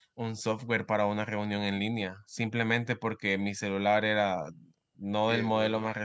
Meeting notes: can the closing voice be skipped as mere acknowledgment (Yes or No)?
Yes